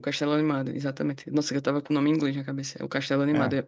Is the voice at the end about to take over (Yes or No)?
No